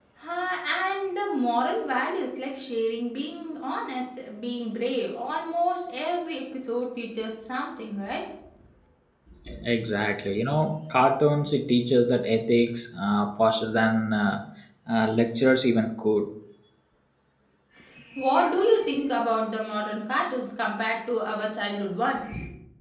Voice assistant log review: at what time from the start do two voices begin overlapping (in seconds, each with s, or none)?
none